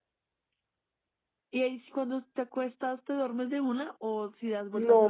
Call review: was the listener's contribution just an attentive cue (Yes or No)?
No